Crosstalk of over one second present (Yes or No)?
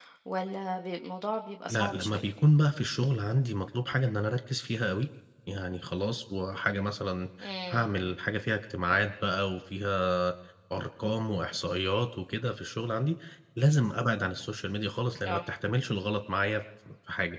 No